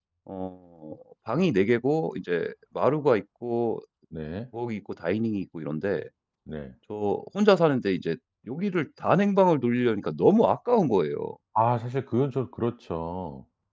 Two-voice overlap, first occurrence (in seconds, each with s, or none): none